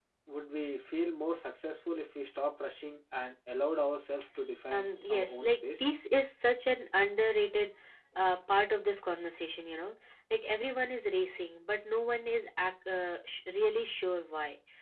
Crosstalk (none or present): present